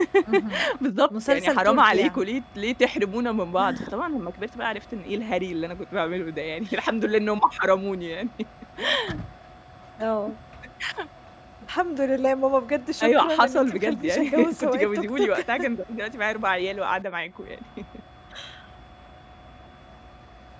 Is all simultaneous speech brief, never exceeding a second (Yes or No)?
No